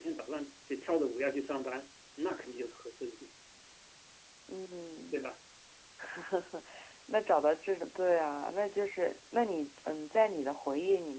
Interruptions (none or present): none